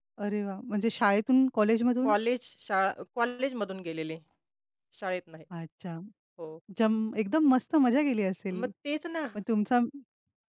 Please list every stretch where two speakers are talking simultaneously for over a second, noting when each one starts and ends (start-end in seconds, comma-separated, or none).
none